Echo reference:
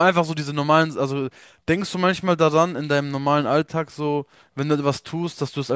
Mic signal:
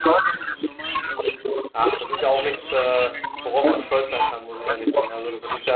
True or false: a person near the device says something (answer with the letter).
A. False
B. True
B